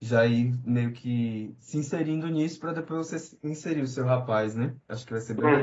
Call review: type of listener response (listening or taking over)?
taking over